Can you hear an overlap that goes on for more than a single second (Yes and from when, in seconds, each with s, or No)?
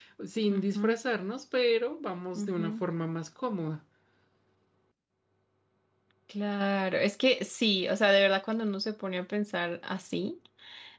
No